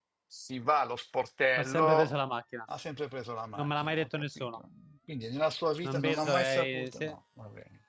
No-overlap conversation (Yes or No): No